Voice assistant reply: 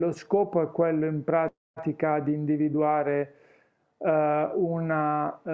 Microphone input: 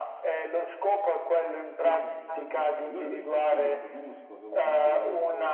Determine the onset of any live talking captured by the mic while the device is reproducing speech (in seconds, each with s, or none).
1.8 s